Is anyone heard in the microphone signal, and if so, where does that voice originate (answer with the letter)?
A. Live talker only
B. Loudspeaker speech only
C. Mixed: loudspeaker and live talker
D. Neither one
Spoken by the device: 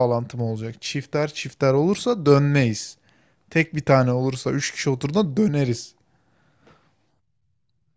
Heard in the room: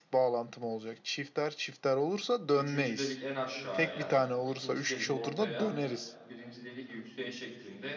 C